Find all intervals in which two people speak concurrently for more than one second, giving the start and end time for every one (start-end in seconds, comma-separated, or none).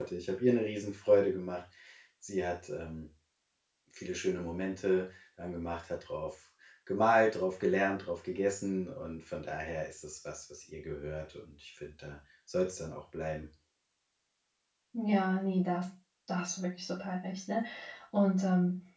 none